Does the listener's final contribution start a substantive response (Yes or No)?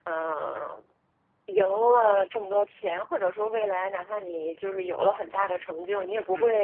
No